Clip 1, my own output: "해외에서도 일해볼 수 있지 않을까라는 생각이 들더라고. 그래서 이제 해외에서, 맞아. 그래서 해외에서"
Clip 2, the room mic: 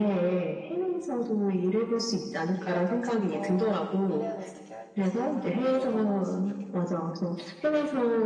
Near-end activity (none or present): present